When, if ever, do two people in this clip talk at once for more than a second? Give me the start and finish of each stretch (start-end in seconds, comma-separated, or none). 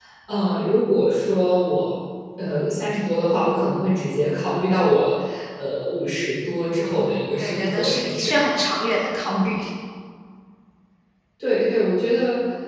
6.7-8.3